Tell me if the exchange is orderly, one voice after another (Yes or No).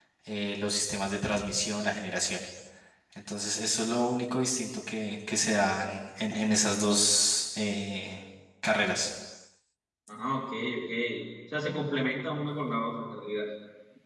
Yes